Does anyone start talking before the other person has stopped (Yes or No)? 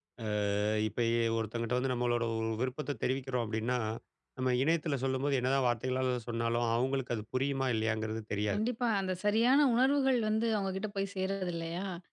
No